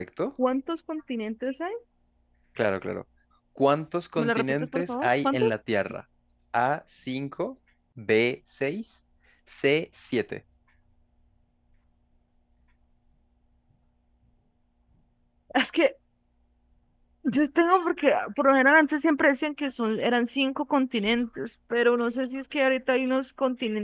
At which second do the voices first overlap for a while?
4 s

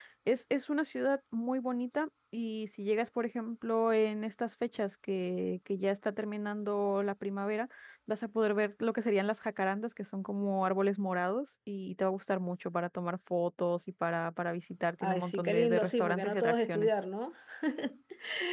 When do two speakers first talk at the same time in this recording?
15 s

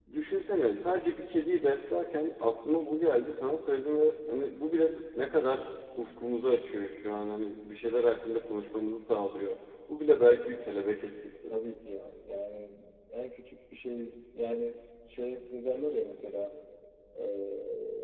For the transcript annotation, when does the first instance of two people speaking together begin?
none

